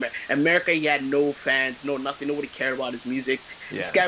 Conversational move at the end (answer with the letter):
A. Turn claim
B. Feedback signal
B